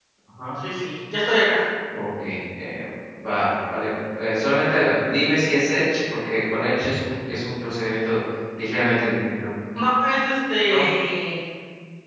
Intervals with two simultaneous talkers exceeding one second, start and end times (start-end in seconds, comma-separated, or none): none